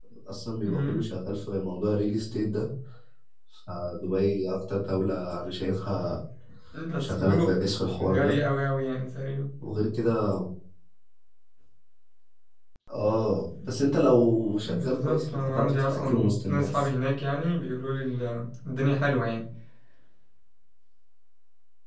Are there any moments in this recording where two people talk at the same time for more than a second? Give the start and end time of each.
14.6-16.9

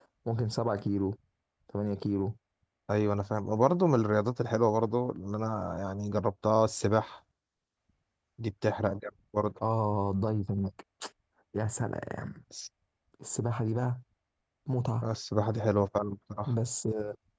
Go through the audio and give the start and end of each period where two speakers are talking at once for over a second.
none

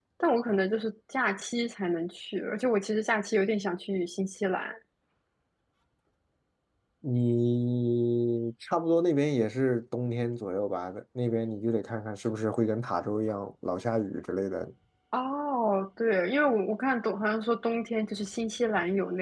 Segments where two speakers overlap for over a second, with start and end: none

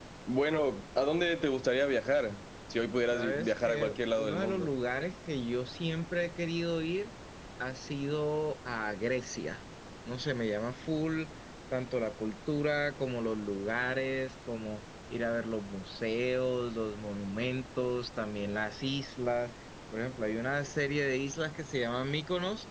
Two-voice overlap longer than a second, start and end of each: 3.1-4.7

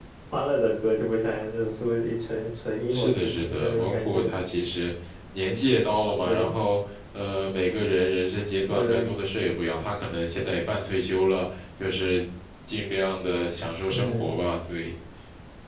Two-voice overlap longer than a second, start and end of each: 2.9-4.3

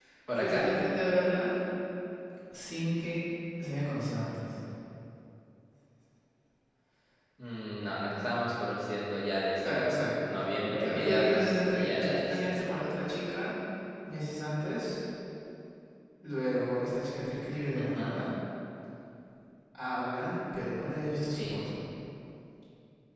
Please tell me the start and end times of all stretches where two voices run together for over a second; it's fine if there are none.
10.8-12.6

